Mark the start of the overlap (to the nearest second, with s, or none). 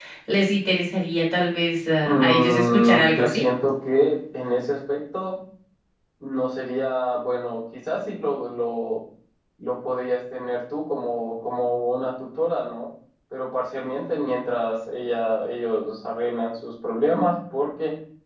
2 s